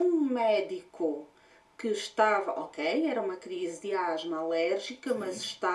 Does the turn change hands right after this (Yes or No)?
No